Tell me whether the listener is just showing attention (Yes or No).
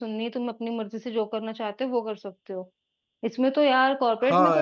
Yes